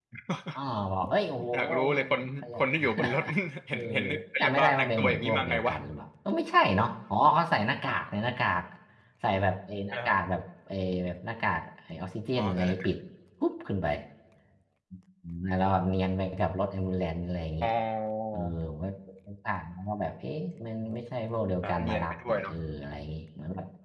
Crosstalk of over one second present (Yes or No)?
Yes